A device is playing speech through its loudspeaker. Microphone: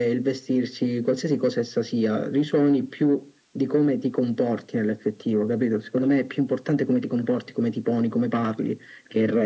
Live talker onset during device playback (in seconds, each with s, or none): none